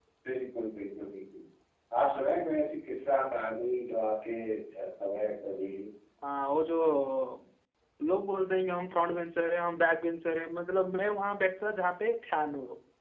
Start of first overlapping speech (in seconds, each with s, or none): none